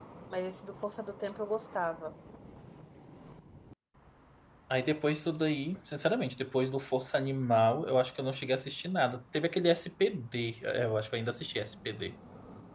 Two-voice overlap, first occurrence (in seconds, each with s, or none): none